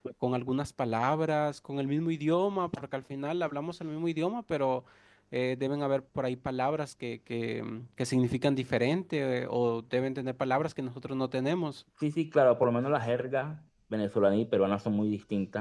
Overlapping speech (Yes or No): No